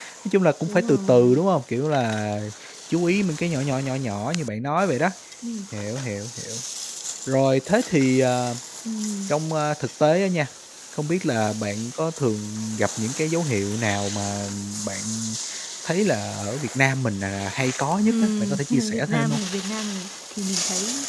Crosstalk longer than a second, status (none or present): present